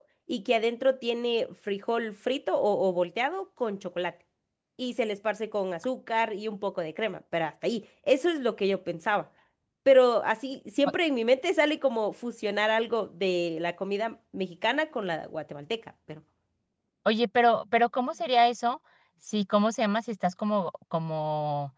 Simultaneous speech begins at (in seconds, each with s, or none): none